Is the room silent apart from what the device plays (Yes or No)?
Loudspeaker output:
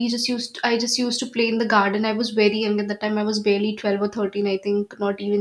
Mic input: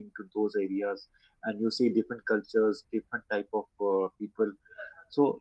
No